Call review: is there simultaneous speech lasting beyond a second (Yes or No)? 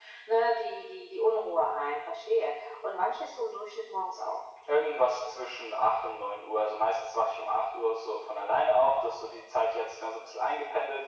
No